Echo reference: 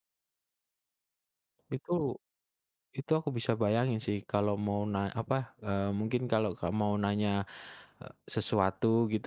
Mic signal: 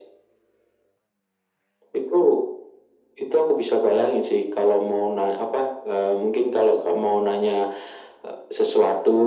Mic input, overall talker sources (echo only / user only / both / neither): echo only